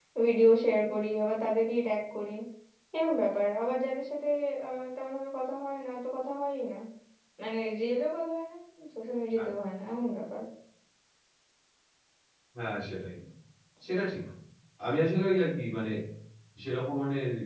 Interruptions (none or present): none